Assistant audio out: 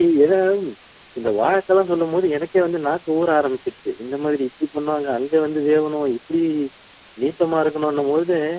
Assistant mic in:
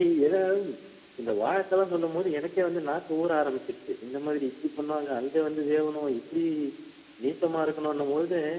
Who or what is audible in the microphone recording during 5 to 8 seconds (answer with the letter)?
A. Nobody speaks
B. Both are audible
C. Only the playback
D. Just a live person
C